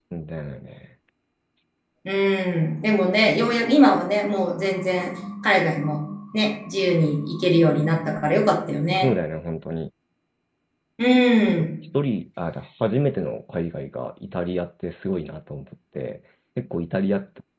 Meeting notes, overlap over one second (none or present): none